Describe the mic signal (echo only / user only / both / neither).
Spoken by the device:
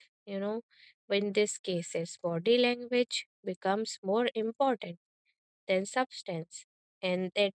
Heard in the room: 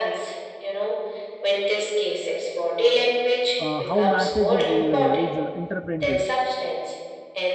both